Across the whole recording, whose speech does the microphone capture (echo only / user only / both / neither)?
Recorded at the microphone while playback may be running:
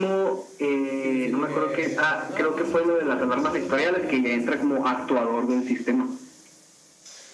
both